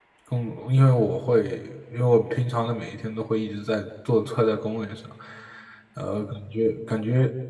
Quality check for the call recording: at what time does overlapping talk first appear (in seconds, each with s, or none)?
none